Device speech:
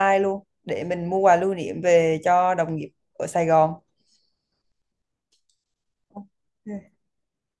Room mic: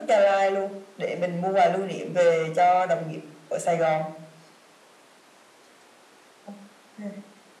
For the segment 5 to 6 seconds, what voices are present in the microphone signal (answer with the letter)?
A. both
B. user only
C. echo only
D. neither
D